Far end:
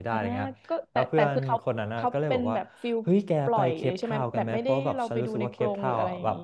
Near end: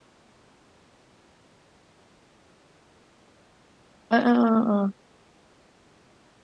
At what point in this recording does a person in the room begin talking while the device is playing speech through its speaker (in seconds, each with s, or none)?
4.1 s